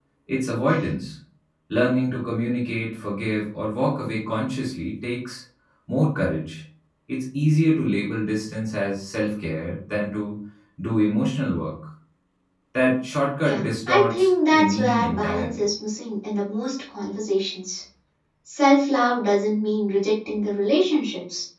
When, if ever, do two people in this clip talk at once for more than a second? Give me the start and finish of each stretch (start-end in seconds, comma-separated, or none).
13.4-15.6